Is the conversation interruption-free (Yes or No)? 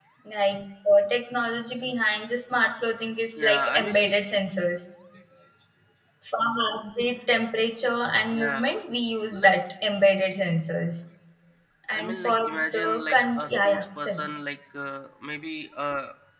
No